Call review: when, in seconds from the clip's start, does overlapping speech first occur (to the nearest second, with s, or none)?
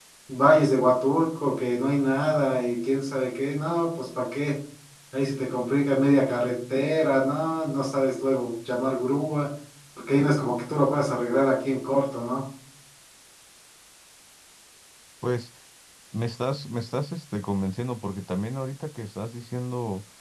none